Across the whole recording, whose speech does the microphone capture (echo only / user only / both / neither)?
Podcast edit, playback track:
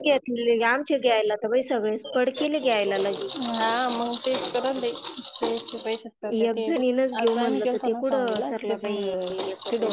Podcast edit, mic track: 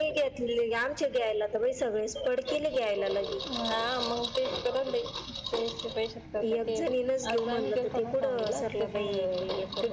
echo only